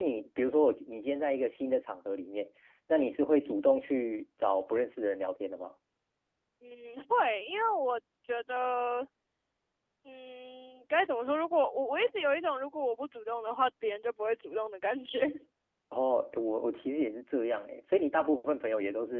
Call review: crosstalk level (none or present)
none